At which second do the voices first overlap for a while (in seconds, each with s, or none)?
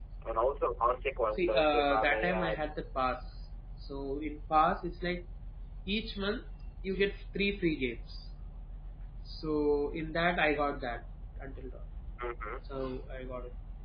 1.4 s